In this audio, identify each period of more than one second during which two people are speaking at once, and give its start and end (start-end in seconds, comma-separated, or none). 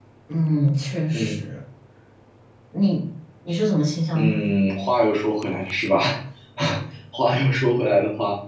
none